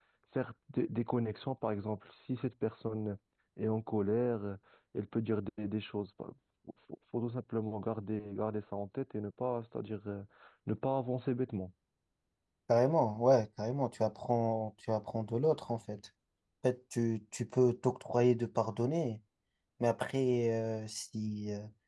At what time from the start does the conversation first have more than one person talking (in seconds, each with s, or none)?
none